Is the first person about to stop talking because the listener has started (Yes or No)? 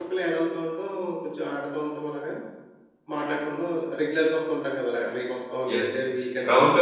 Yes